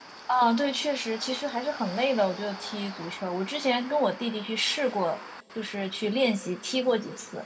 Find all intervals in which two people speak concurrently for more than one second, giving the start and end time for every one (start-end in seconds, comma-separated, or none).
none